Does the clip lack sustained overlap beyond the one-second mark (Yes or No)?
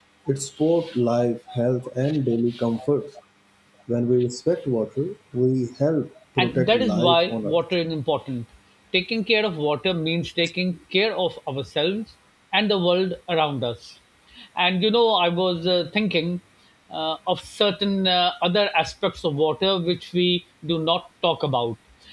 No